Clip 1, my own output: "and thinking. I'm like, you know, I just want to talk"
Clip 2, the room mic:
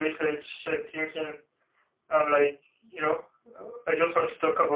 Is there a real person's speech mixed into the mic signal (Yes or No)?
No